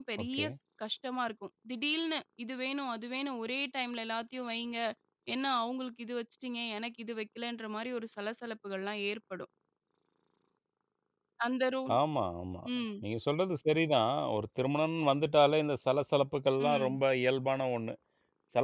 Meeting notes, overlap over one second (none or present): none